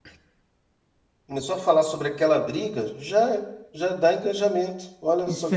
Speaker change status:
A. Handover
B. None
A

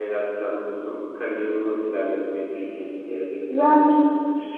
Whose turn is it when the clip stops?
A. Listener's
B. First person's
A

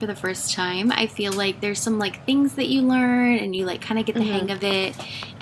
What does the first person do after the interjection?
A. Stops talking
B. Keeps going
B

